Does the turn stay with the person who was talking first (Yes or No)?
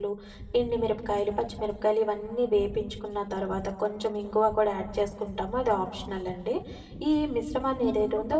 No